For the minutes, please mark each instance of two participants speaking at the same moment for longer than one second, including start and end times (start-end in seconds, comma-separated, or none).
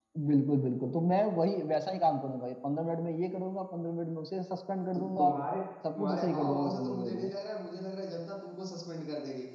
6.0-7.3